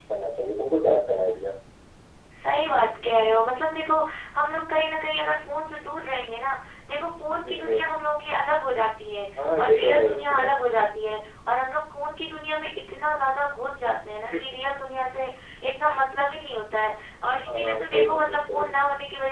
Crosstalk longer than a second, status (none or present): present